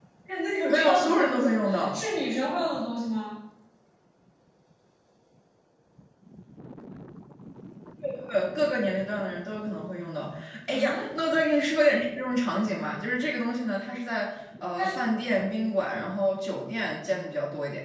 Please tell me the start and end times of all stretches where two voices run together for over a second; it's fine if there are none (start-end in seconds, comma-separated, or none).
0.7-2.0